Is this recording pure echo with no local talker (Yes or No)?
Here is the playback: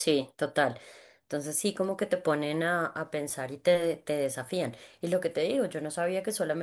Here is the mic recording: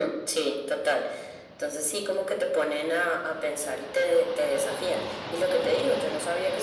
Yes